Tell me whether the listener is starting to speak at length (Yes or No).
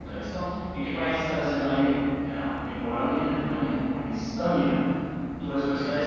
Yes